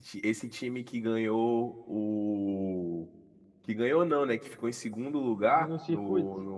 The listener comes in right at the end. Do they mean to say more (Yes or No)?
No